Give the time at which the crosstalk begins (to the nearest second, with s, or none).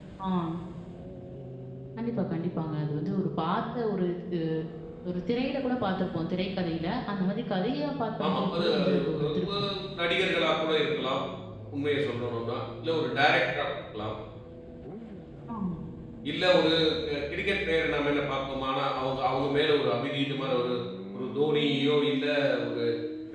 8 s